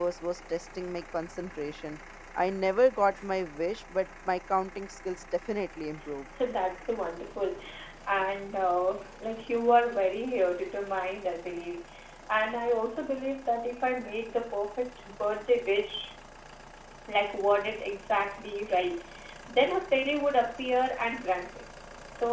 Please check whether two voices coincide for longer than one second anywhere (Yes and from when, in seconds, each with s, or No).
No